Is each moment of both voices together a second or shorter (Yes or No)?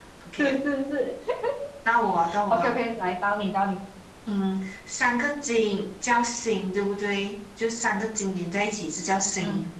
Yes